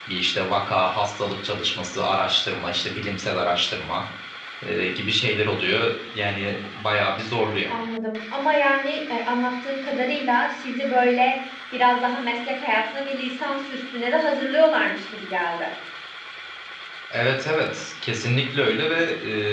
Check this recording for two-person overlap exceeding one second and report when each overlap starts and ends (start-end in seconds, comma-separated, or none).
none